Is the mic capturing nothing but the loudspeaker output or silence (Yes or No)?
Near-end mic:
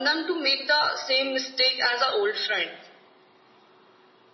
Yes